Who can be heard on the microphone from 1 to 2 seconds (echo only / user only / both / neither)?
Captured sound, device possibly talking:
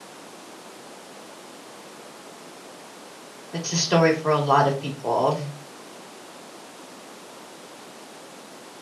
neither